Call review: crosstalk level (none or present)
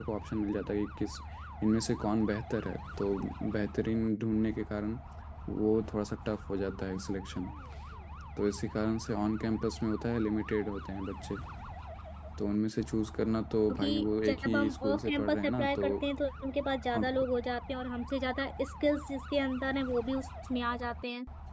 present